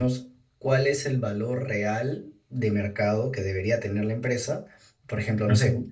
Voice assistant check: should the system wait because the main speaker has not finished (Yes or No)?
Yes